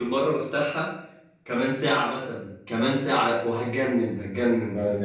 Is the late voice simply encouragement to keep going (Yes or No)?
No